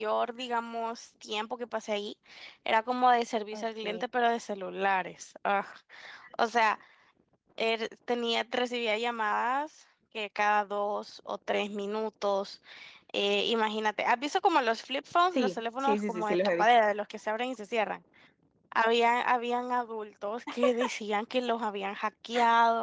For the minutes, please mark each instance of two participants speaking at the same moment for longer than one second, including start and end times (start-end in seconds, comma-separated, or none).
15.3-16.7